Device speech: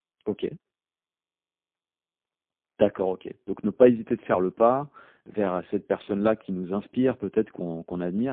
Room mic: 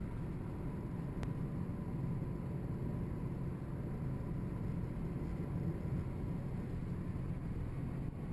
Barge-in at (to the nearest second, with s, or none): none